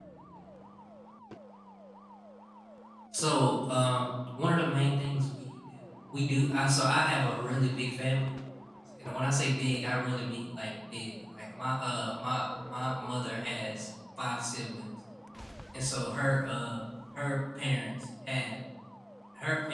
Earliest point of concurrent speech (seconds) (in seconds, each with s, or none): none